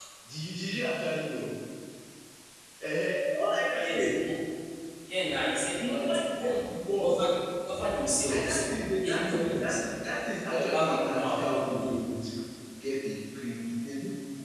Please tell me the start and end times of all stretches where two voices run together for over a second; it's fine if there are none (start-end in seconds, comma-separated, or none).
5.8-7.1, 8.3-9.8, 10.6-11.9